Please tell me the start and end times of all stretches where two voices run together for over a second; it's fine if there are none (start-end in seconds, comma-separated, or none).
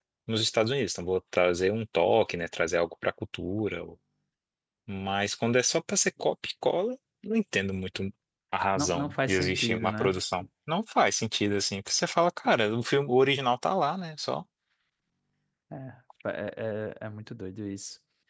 8.8-10.1